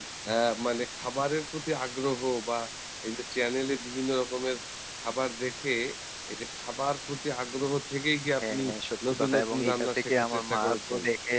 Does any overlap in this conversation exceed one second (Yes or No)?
Yes